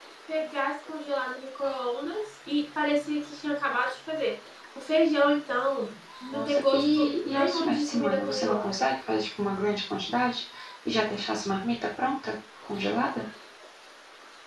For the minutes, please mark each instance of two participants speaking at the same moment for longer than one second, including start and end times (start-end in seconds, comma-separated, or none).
6.3-8.7